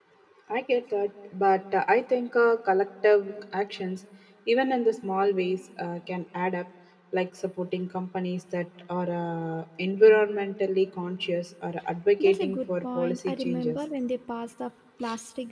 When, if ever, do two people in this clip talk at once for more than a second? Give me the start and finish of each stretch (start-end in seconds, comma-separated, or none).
12.2-13.8